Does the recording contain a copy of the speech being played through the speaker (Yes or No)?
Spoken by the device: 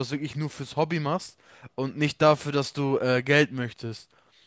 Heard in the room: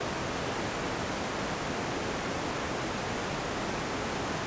No